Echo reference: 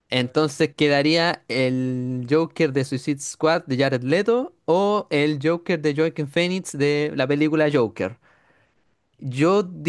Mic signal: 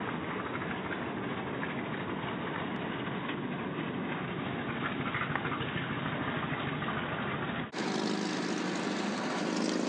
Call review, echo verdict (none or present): none